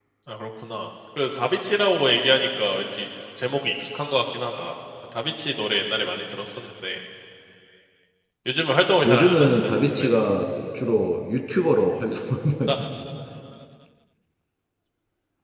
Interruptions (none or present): present